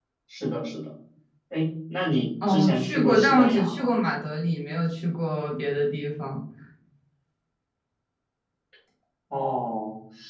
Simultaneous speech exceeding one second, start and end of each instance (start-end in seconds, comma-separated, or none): 2.5-3.9